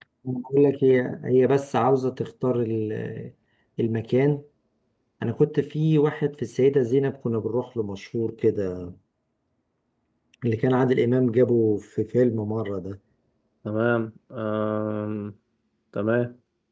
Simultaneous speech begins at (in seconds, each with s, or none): none